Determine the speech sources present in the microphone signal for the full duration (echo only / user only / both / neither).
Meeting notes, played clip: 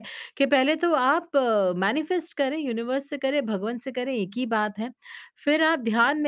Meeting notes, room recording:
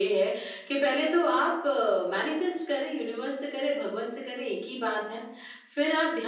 echo only